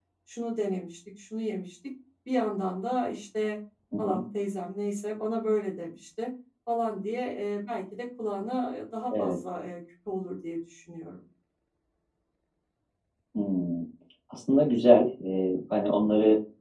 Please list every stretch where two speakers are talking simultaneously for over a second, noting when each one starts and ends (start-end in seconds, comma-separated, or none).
none